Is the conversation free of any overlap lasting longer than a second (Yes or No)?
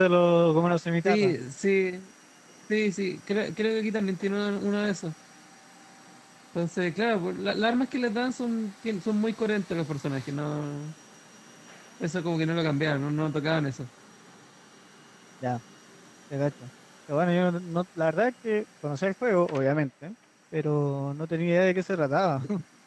Yes